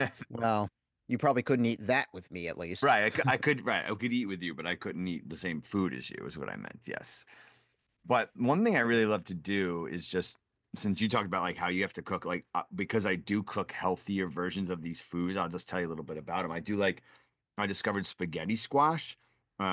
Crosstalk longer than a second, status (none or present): none